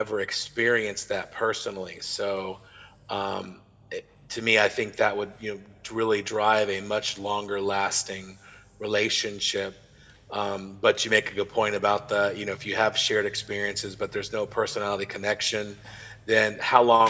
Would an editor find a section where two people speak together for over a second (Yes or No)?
No